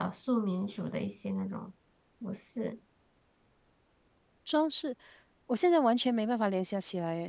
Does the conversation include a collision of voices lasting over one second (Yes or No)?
No